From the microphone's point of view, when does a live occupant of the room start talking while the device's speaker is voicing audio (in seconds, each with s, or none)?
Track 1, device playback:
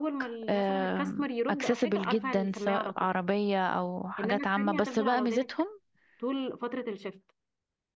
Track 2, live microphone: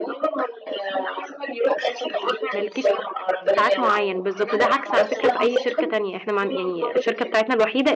2.5 s